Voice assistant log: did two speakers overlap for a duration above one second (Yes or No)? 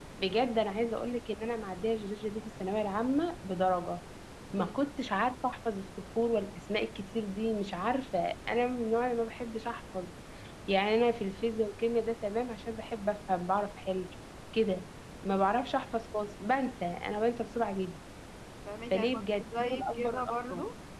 Yes